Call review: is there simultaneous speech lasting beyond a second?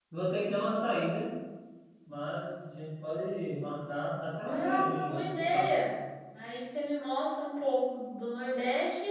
Yes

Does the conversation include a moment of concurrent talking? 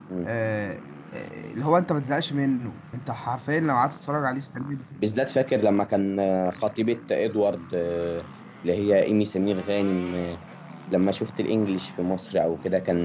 No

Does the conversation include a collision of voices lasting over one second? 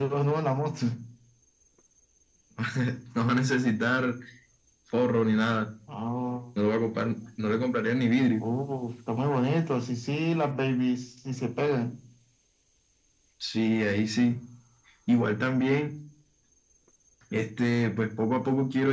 No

